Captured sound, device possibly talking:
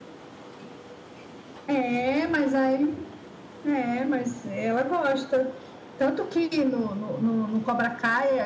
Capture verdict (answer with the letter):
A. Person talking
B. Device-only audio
B